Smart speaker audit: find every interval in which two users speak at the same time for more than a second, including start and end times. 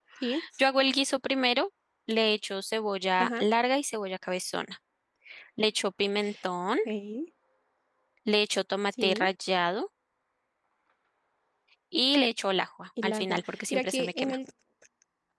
13.0-14.4

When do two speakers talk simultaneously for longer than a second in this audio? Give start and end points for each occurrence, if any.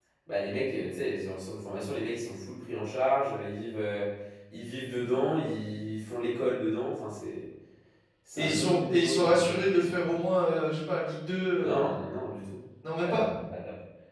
8.4-10.0

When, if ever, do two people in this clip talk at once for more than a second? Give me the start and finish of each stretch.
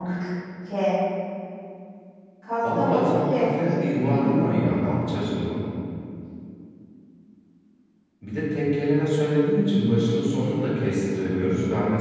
2.8-4.3

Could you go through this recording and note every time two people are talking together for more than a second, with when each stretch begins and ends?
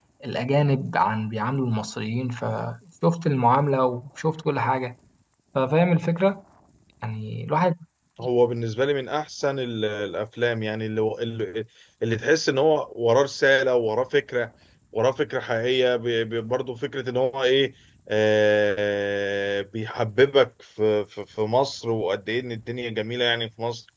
none

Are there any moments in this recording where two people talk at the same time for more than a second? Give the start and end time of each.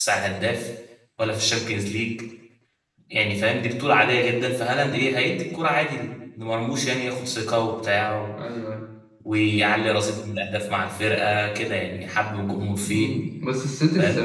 none

